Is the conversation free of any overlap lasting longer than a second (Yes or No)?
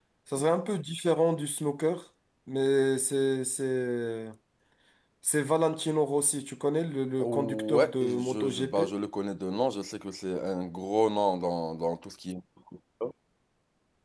No